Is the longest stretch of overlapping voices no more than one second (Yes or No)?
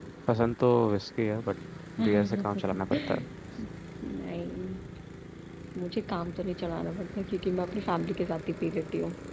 No